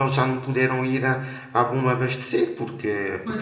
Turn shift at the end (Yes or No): No